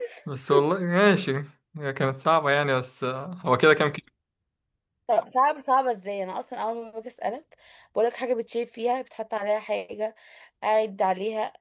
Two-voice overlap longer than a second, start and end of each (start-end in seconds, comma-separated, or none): none